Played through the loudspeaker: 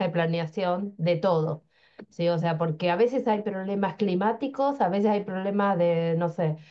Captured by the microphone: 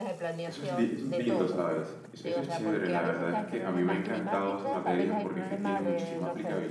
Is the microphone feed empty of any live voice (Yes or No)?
No